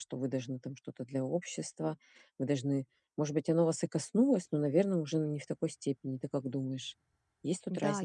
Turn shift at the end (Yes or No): Yes